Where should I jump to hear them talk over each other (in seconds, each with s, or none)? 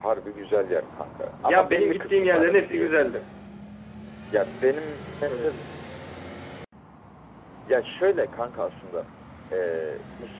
1.4 s